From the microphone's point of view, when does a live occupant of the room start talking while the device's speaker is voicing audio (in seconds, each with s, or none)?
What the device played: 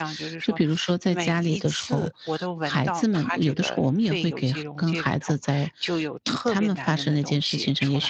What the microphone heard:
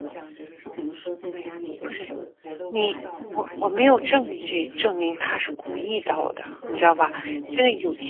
1.8 s